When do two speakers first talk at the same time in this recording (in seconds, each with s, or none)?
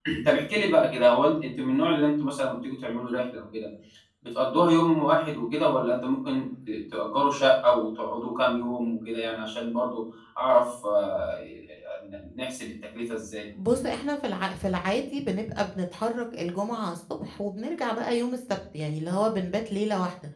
none